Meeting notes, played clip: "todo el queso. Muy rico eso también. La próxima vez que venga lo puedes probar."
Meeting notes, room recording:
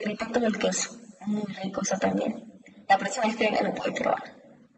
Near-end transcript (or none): none